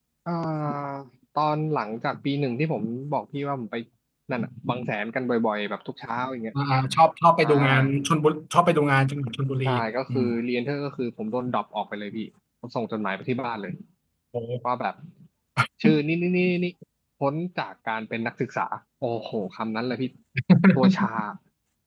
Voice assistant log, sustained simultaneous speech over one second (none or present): none